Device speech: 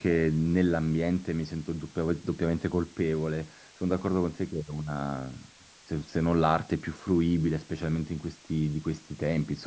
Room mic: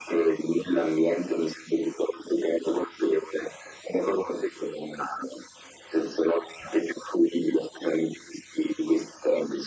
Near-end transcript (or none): none